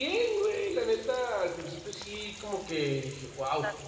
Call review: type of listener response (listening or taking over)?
listening